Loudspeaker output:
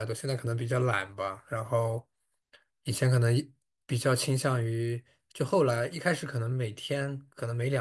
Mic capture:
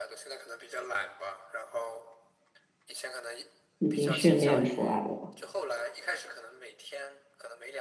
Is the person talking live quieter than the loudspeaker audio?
No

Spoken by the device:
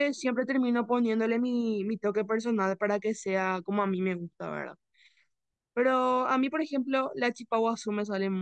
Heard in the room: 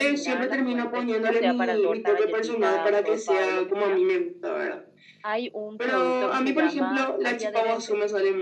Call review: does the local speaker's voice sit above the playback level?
No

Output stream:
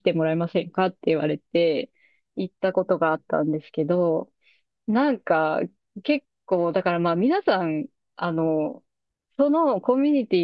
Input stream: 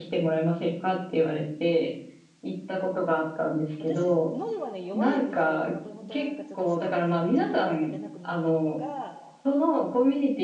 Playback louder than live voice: Yes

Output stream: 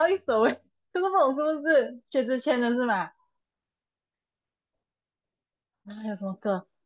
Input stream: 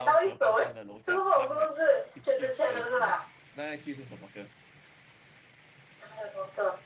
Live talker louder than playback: No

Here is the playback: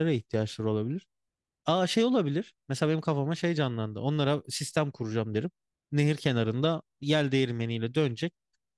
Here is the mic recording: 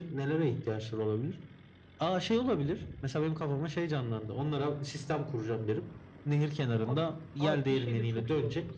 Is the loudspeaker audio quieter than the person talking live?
No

